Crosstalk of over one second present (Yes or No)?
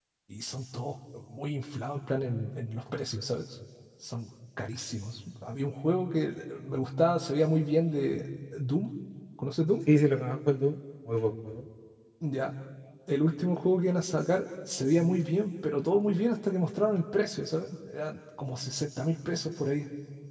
No